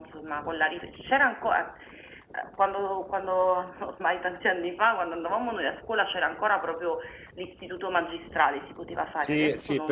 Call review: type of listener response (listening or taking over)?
taking over